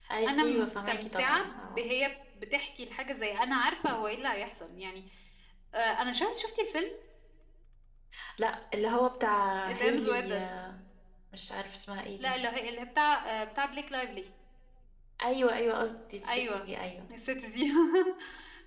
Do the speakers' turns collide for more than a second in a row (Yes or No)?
Yes